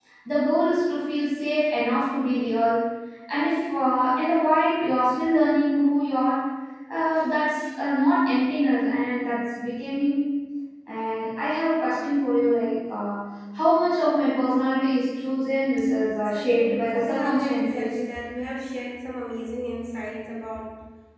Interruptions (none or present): present